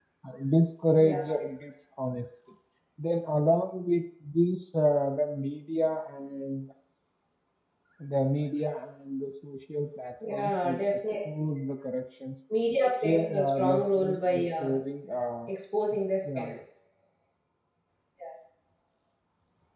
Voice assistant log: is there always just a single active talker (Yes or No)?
No